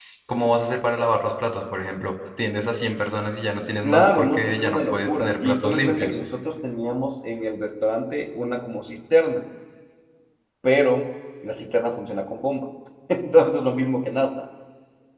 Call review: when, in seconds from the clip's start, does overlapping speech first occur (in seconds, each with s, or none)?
3.8 s